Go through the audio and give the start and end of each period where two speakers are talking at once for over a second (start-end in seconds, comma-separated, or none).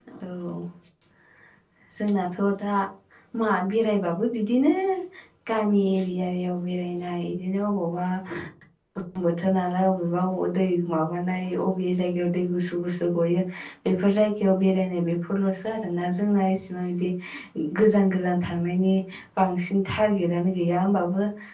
none